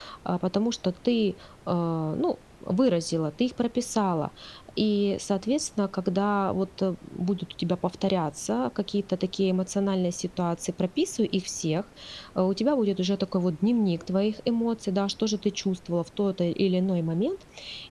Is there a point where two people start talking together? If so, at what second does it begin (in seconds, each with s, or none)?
none